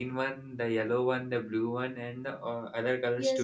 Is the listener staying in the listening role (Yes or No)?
No